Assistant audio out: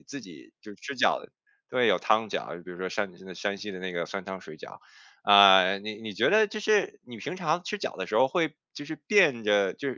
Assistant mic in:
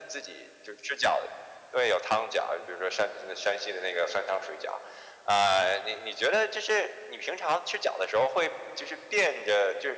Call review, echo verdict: present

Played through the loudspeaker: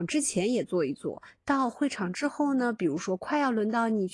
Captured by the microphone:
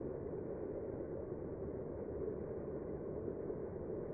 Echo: none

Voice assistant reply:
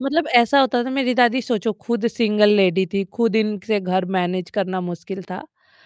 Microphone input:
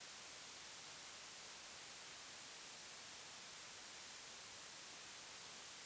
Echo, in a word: none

